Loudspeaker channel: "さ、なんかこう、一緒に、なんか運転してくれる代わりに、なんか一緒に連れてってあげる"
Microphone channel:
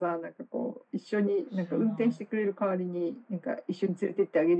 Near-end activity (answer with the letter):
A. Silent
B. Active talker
B